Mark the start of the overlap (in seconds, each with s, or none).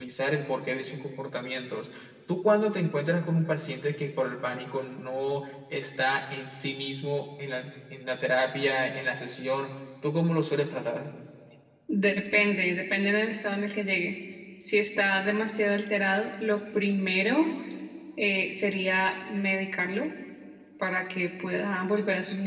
none